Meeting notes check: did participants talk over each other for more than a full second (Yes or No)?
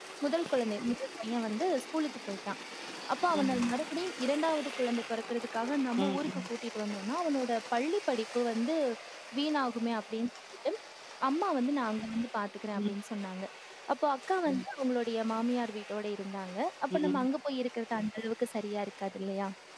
No